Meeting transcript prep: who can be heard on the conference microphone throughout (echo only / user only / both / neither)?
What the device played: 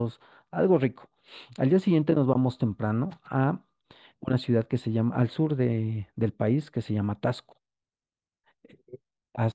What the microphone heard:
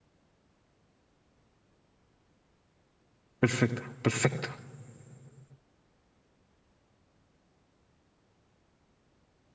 user only